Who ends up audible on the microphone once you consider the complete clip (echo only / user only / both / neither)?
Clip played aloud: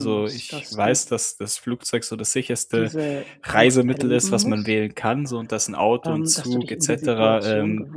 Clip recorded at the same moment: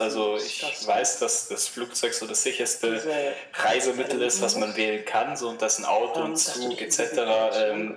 echo only